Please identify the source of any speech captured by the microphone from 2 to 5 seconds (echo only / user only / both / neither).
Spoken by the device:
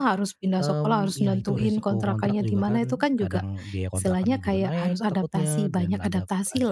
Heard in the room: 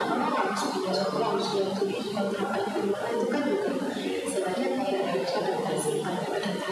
echo only